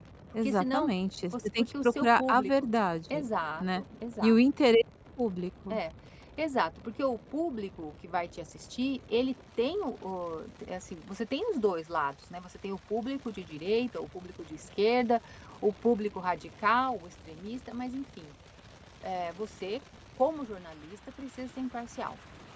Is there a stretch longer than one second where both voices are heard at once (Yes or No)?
Yes